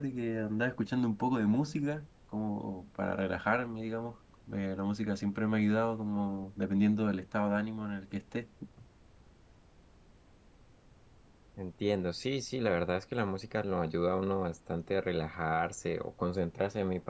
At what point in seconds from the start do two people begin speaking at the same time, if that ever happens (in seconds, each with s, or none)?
none